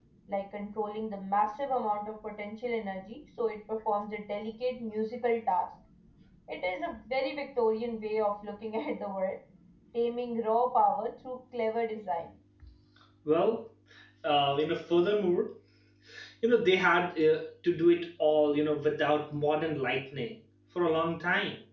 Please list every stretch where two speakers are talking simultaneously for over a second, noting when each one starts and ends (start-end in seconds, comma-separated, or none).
none